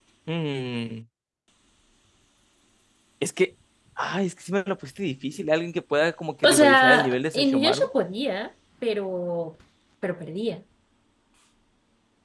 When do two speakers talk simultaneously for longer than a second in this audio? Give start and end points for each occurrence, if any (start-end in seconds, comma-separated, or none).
6.4-7.9